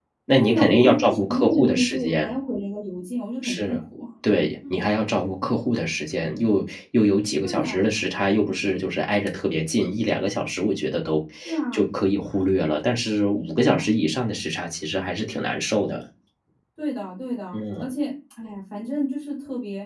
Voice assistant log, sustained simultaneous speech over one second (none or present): present